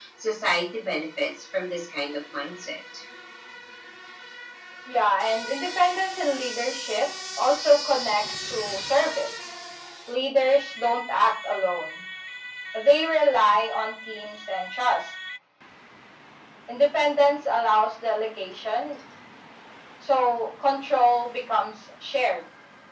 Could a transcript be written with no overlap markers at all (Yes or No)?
Yes